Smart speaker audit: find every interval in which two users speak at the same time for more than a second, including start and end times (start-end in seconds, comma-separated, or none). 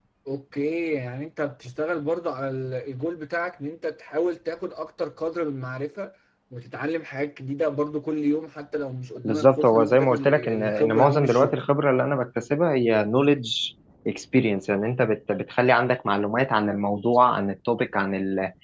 9.2-11.5